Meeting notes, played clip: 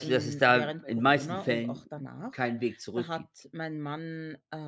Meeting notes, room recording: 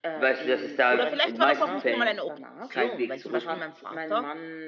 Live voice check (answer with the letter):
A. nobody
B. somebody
B